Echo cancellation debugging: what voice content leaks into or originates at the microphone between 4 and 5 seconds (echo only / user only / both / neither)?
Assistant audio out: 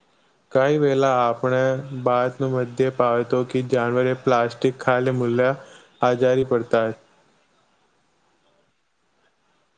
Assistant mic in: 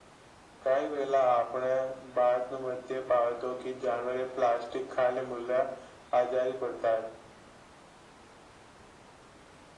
echo only